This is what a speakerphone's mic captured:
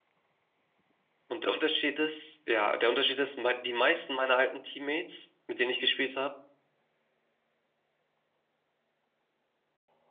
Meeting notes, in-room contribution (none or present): present